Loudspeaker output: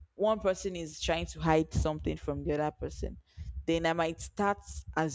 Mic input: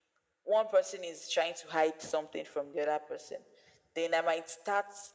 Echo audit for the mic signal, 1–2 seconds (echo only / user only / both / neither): echo only